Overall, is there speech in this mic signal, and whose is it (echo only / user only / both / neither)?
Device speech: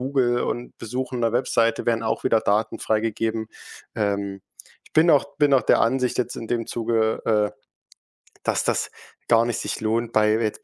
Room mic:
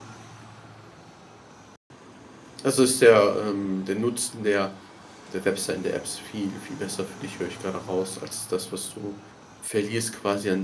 user only